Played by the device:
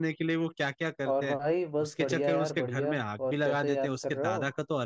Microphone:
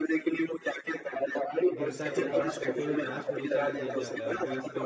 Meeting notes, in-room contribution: present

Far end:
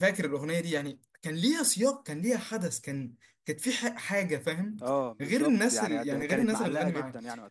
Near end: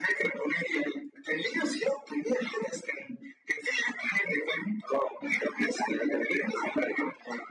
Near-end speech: none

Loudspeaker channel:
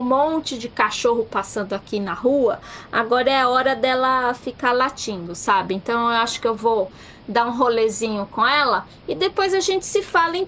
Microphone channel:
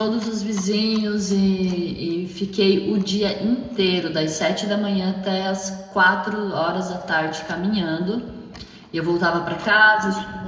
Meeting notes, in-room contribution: present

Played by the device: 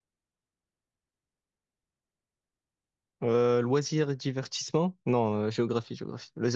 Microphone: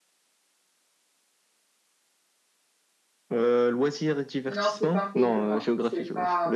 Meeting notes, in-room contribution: present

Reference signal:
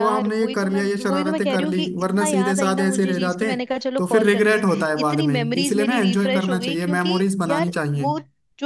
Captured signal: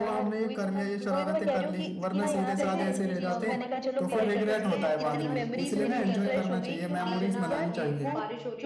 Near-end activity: present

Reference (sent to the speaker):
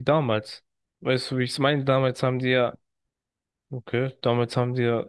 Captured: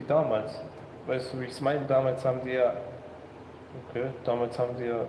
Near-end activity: none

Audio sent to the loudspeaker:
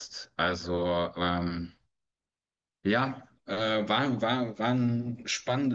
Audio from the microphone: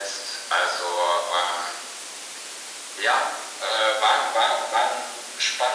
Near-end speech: none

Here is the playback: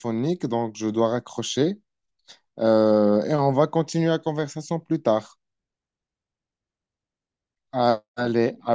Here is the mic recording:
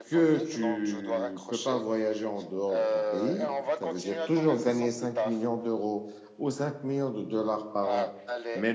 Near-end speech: present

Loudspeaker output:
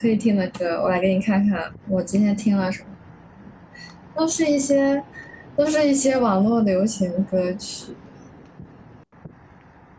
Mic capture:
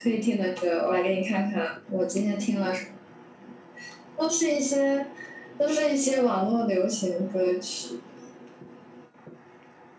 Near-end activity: none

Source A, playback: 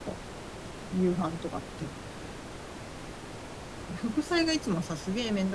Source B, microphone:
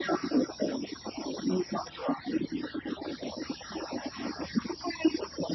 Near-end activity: none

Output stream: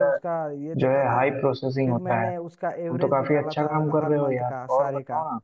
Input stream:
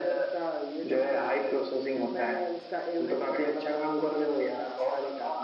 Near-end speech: none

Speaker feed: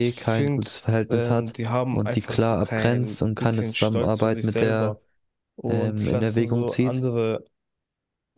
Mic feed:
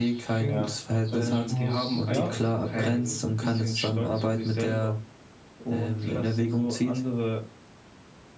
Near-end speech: present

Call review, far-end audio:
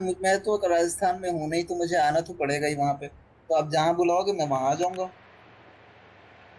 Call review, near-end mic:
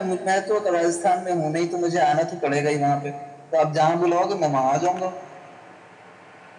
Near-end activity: none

